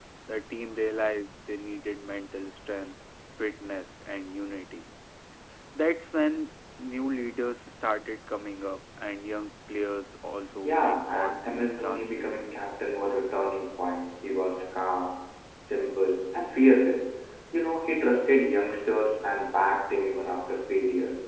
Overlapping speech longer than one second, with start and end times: 10.6-12.4

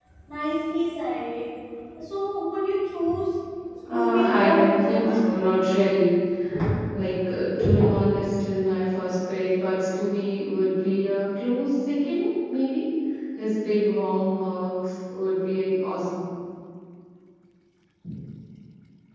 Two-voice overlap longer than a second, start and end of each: 3.9-5.2

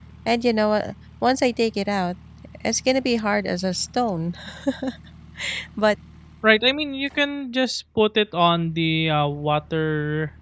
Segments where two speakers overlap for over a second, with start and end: none

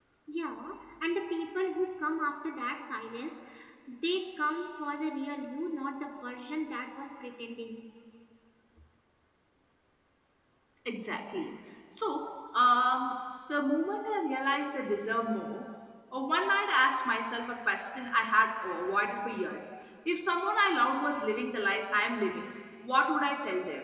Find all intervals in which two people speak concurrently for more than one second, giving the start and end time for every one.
none

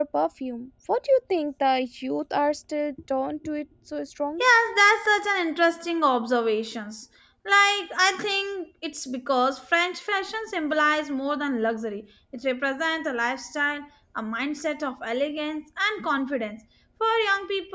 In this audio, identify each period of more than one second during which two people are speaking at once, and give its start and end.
none

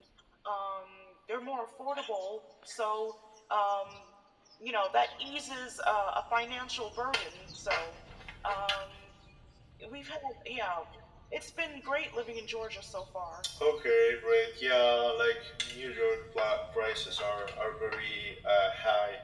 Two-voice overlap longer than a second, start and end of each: none

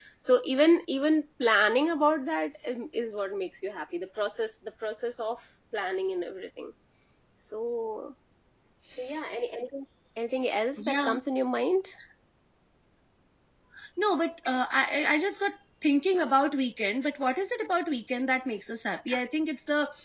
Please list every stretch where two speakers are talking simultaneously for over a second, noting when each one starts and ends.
none

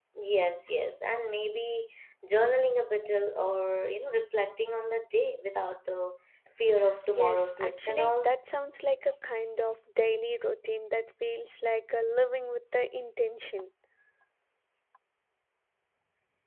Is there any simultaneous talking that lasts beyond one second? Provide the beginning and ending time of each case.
7.1-8.3

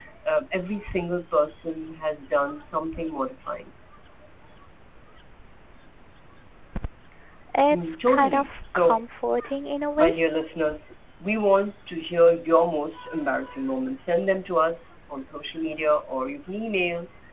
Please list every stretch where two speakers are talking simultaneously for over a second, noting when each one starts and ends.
7.7-9.0

